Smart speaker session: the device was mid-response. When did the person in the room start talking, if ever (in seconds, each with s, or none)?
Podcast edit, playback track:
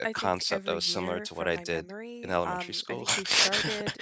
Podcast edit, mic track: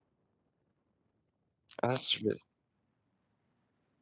1.8 s